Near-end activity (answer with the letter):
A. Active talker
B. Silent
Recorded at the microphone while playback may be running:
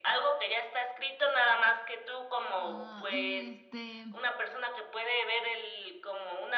A